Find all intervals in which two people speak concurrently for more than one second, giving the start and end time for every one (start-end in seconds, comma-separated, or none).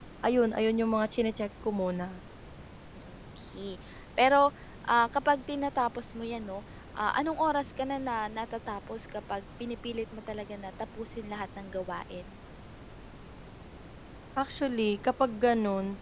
none